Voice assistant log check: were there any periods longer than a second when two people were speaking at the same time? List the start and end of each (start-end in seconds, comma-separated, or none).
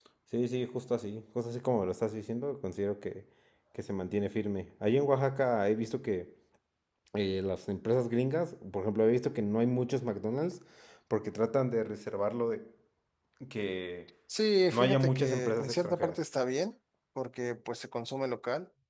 14.7-16.2